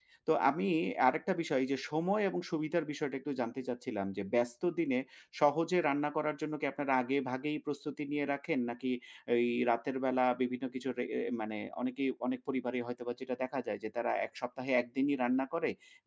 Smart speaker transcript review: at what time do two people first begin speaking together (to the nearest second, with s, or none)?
none